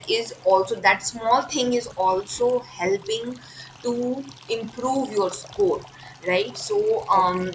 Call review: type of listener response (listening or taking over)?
listening